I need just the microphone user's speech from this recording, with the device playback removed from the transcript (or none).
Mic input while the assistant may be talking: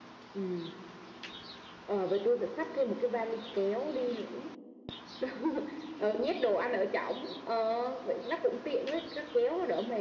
none